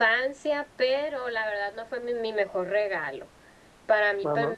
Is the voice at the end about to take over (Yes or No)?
No